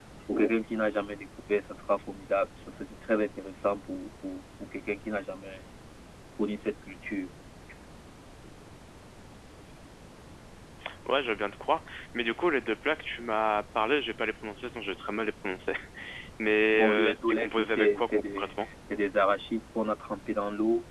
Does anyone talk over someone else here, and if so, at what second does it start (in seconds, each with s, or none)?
16.7 s